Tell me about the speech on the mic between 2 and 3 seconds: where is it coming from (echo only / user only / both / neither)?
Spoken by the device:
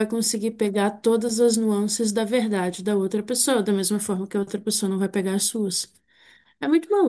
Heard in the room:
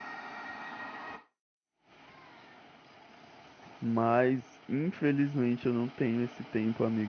neither